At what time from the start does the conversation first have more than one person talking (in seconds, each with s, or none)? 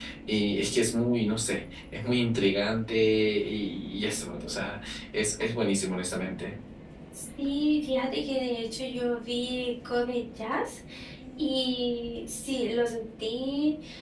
none